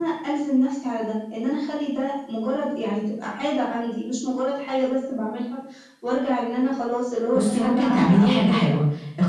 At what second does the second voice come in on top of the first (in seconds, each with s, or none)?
7.3 s